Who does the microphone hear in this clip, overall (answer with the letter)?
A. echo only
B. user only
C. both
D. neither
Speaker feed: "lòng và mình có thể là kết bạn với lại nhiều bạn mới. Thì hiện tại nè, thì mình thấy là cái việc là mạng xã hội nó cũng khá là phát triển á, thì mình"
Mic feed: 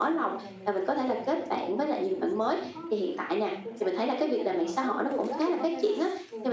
C